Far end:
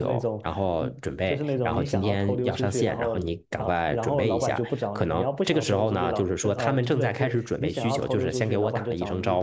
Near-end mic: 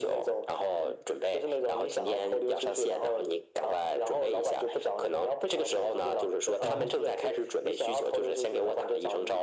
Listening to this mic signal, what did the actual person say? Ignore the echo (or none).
然后，